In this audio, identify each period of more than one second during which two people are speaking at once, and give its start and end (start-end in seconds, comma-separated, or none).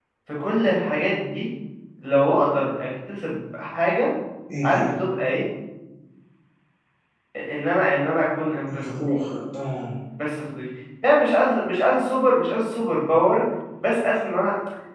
none